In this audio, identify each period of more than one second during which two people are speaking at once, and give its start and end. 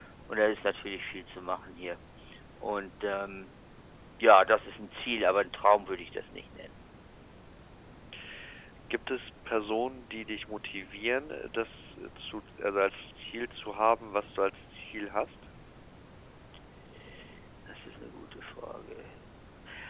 none

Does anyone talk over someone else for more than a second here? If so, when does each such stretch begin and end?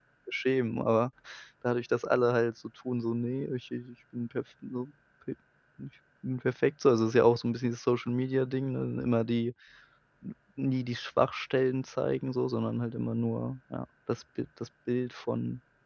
none

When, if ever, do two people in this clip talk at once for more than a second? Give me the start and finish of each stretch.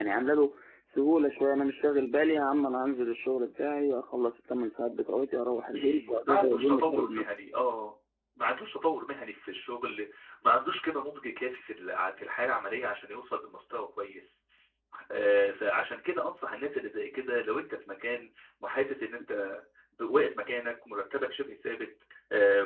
5.8-7.3

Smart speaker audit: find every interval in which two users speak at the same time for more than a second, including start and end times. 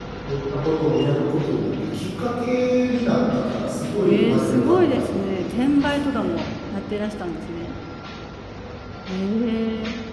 4.0-6.3

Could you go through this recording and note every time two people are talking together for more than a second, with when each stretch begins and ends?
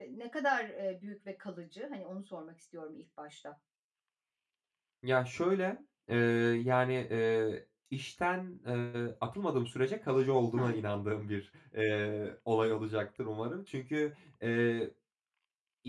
none

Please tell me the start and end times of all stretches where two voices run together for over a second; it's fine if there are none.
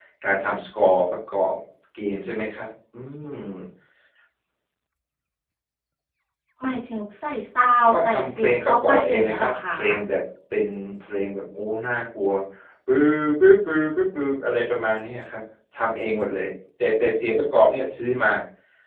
7.9-9.8

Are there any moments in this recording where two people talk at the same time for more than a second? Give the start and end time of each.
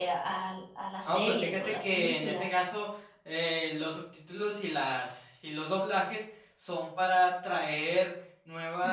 1.1-2.5

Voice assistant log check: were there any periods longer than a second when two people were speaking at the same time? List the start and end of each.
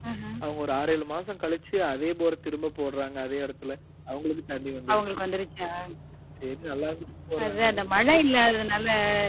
none

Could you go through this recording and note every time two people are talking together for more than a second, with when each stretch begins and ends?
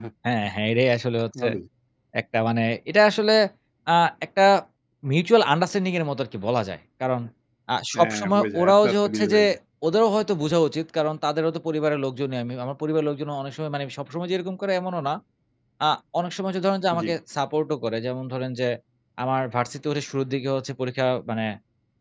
7.9-9.4

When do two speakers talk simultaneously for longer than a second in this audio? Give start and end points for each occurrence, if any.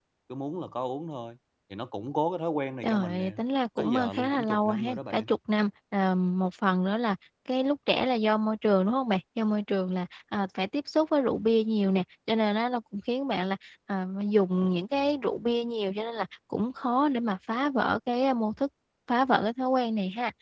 3.8-5.3

